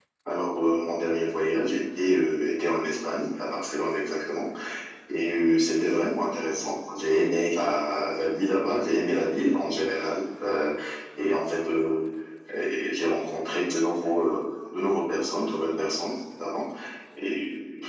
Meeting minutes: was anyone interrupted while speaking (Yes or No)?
No